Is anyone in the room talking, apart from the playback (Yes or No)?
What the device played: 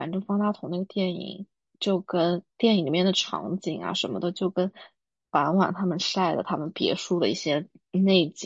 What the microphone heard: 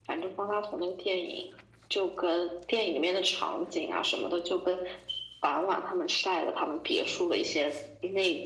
No